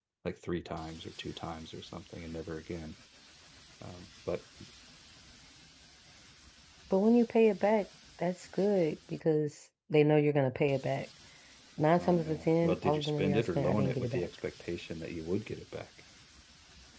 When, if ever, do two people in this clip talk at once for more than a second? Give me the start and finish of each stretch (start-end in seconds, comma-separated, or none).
12.0-14.3